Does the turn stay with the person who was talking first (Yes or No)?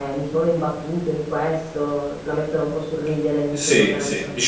No